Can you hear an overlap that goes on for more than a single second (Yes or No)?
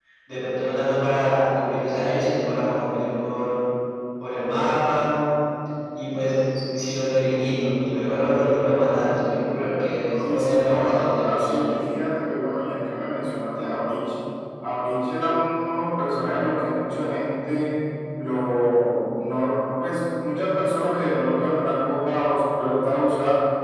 Yes